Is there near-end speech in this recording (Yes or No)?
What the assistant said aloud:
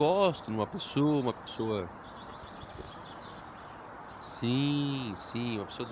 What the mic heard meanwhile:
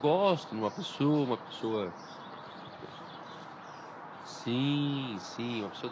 No